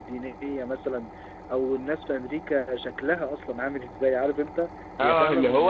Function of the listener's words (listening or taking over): taking over